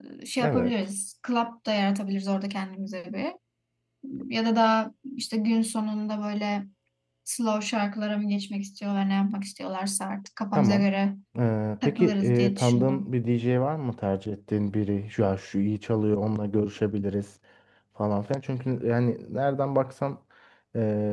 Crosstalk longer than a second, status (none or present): present